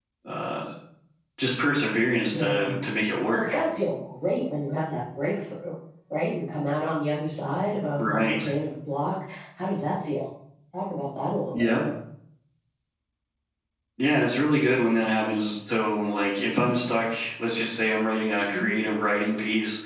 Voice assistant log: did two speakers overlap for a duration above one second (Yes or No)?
No